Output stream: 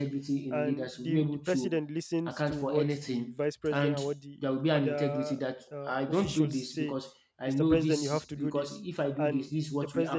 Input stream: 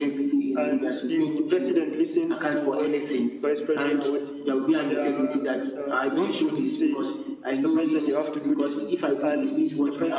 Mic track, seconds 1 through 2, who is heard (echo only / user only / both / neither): echo only